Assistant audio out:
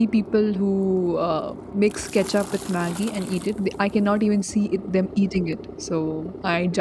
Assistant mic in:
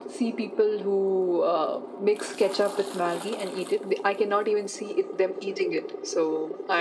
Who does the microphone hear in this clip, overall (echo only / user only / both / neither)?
echo only